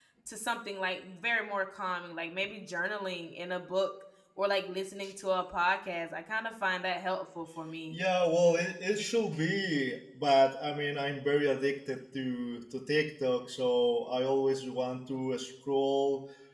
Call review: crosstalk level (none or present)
none